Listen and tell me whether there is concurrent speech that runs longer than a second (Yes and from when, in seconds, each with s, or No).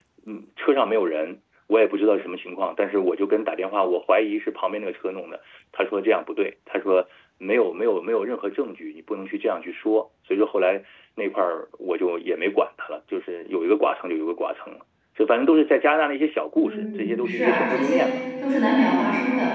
Yes, from 16.6 s